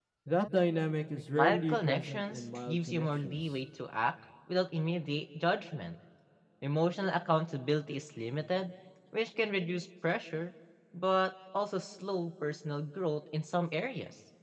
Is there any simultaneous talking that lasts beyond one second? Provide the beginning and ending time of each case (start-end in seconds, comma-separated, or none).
1.3-3.4